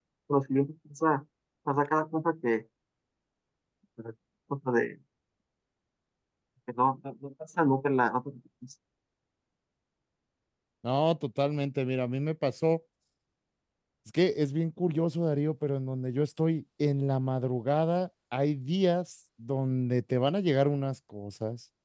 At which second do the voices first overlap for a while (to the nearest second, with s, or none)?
none